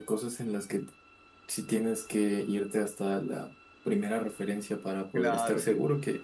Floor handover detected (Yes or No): No